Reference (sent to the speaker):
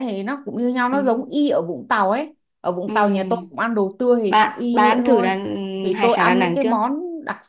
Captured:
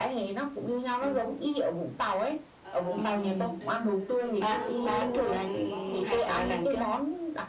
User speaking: Yes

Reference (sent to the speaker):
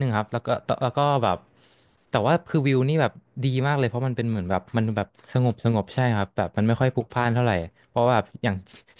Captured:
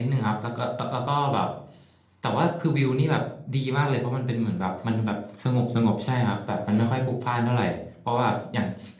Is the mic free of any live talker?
Yes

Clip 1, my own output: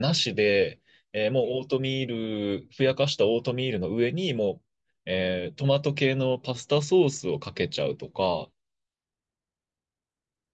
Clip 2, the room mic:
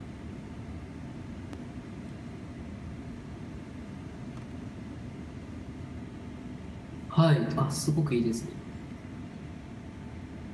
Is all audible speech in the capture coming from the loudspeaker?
No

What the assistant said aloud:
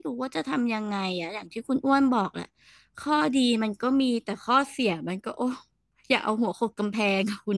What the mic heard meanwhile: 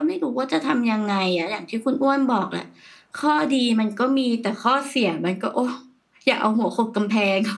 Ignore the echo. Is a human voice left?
No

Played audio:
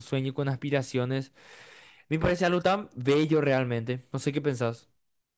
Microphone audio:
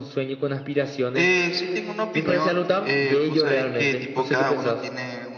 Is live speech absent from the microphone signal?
No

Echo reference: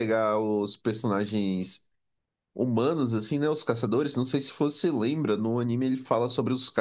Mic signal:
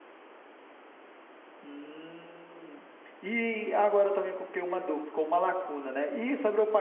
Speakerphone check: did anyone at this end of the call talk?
Yes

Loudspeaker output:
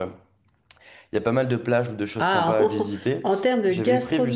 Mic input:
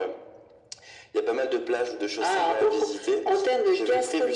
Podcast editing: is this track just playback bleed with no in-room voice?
Yes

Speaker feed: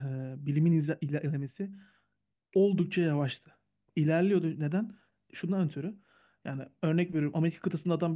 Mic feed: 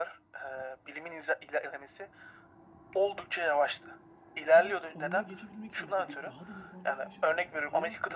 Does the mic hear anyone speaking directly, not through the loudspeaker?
Yes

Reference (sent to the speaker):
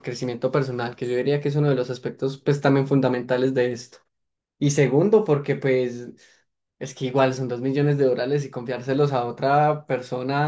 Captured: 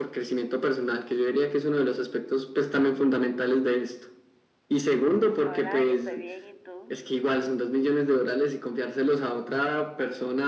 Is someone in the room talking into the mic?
Yes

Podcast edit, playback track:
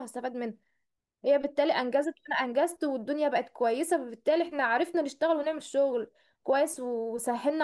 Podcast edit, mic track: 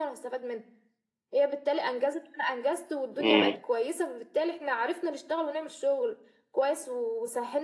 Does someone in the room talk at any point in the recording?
Yes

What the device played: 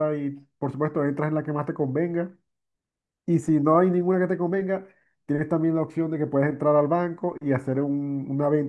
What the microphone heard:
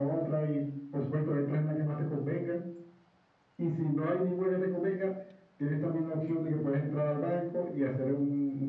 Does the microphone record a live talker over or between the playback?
No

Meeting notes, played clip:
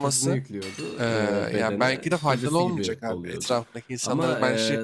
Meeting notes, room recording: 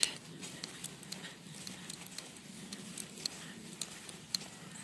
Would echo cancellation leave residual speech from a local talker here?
No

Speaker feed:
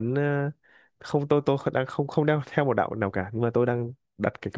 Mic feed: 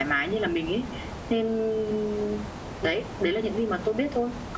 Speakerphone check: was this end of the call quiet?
No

